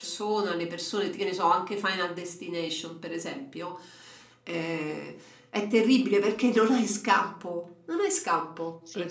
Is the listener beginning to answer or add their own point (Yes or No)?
Yes